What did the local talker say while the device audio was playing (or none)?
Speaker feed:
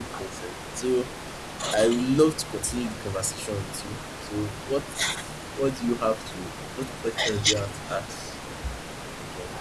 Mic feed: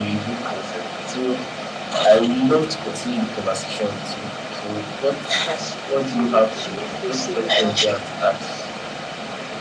That she didn't feel she didn't feel safe about it